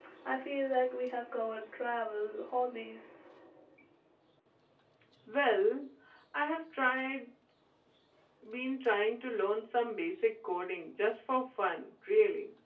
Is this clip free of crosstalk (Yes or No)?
Yes